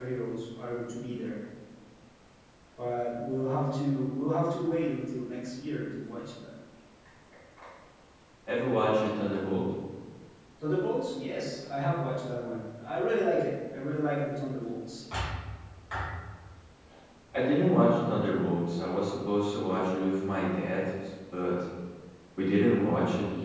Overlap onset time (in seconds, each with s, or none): none